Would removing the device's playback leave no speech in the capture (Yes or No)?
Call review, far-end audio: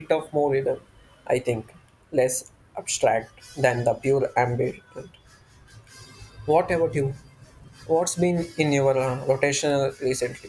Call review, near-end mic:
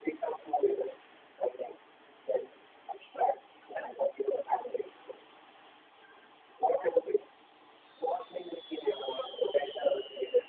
Yes